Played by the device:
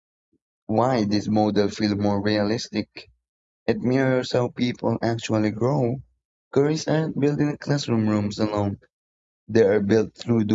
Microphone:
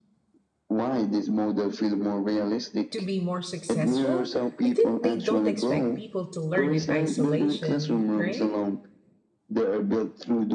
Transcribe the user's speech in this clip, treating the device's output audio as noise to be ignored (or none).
to be more successful, I think they don't expect people to learn in isolation, right?